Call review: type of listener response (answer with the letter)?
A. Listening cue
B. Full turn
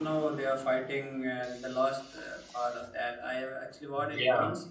A